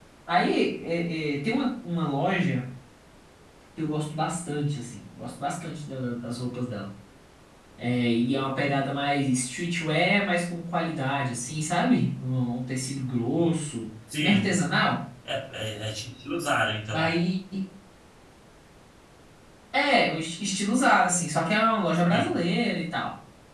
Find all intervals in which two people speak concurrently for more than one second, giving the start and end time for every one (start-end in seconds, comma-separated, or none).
none